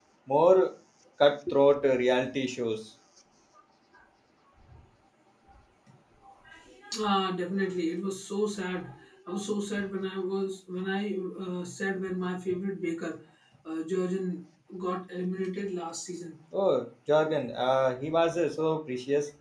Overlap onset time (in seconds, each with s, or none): none